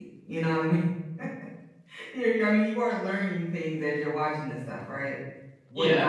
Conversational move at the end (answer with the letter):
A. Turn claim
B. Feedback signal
B